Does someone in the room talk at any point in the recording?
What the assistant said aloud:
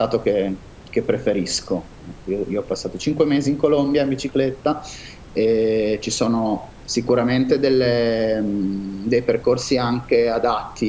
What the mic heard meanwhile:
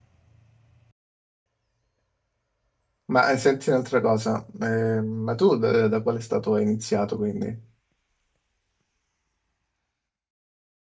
Yes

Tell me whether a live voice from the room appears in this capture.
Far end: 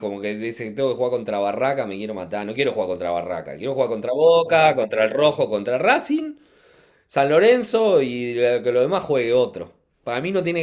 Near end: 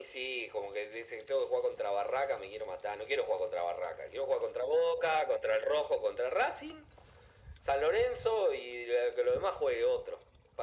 No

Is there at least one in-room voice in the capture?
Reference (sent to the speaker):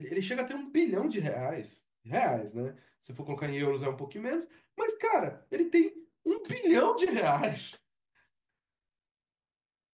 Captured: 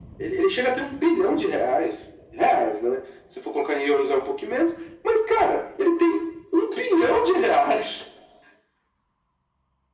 No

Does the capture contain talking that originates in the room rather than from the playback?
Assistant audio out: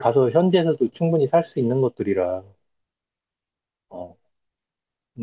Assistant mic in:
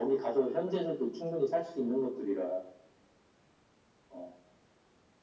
No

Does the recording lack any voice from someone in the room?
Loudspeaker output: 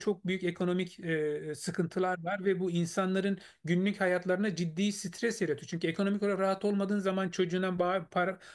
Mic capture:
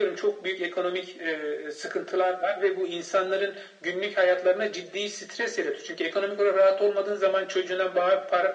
Yes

